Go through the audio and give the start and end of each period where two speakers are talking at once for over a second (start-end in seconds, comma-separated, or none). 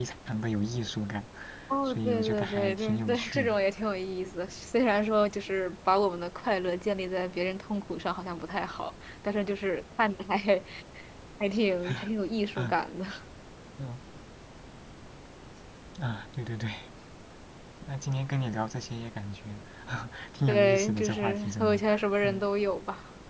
1.9-3.5, 20.5-21.8